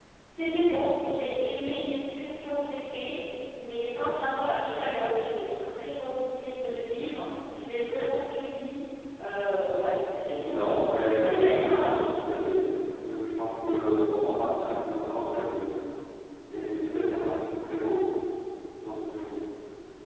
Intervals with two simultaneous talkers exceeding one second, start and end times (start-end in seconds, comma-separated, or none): 10.4-12.0